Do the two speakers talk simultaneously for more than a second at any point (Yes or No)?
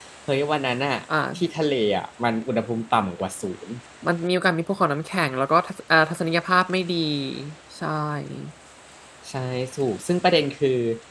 No